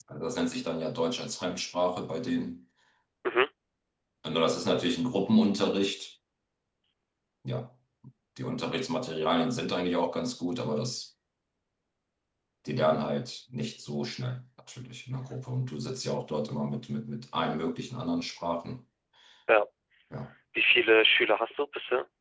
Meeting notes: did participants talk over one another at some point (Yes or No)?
No